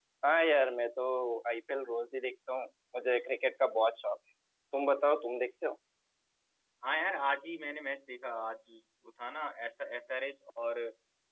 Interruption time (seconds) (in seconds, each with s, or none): none